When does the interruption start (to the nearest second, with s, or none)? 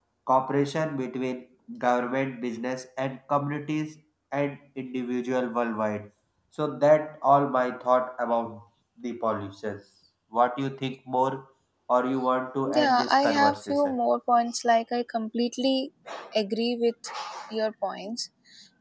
13 s